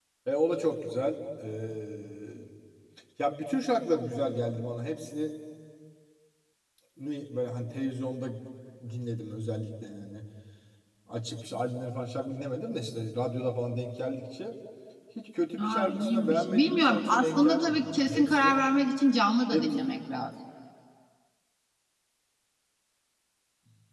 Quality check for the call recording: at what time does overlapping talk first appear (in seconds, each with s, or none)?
15.6 s